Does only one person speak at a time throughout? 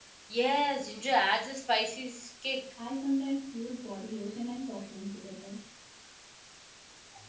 Yes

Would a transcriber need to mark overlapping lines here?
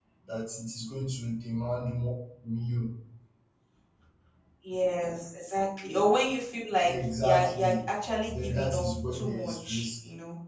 Yes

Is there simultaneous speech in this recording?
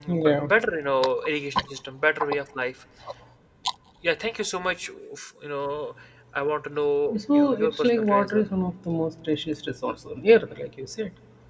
Yes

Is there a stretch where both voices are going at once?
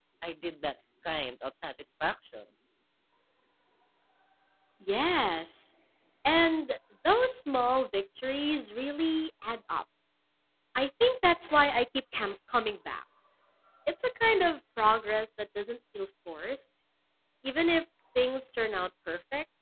No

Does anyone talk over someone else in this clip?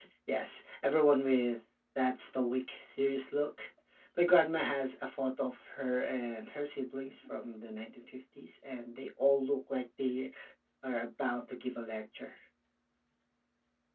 No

